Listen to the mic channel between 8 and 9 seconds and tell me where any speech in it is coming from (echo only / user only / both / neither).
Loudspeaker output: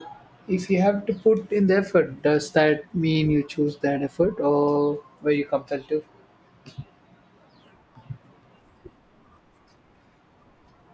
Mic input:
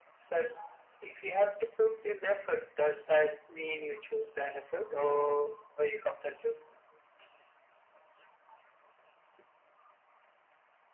neither